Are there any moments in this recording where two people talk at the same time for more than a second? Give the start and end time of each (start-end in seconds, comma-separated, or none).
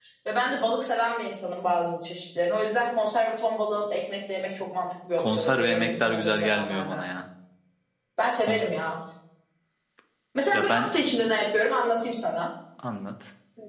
5.2-7.0